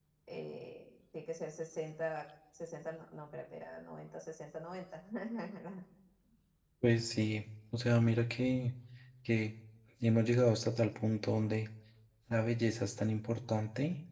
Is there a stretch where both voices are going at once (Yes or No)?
No